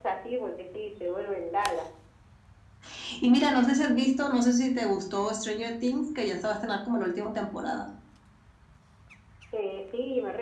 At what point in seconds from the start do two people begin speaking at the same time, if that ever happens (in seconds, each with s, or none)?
none